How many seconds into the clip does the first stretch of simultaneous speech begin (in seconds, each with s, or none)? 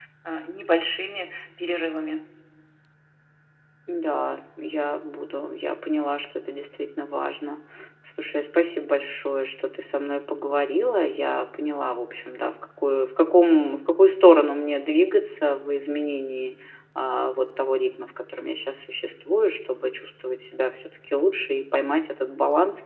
none